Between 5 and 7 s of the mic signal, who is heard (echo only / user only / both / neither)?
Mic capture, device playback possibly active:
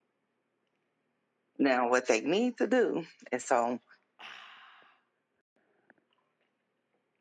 neither